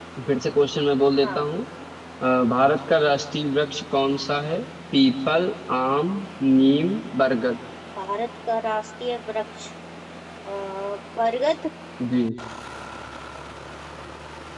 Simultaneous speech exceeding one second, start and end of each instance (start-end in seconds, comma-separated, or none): none